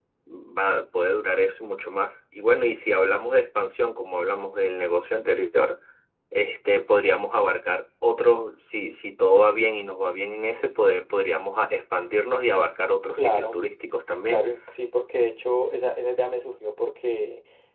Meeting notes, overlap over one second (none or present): none